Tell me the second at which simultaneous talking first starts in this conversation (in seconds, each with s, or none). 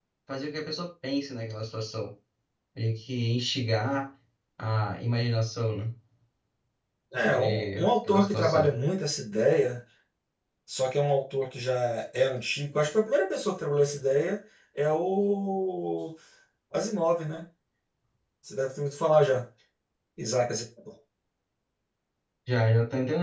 7.2 s